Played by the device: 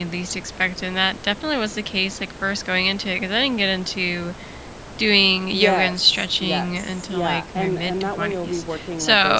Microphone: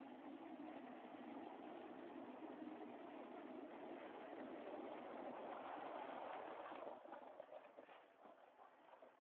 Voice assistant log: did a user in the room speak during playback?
No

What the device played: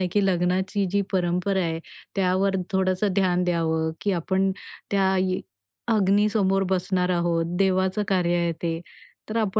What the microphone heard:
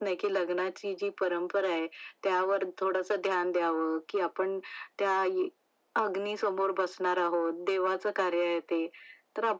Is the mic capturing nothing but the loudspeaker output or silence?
Yes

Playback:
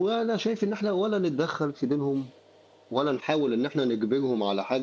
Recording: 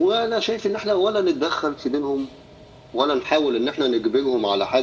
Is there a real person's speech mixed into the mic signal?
No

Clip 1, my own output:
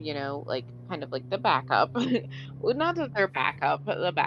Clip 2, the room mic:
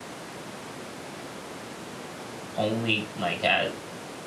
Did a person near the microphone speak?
Yes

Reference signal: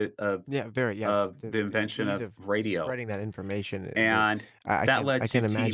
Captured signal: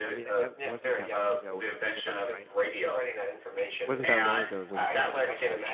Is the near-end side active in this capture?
Yes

